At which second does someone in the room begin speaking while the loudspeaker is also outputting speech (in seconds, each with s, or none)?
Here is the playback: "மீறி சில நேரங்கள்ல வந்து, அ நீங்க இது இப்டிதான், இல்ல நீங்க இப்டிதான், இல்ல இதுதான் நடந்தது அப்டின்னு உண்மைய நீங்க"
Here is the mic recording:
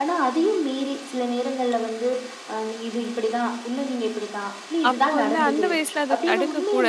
4.9 s